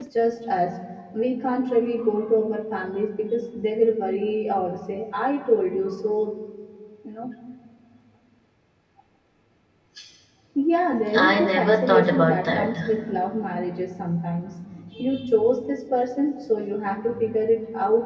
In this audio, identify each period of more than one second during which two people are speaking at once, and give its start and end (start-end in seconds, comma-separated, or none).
11.1-12.7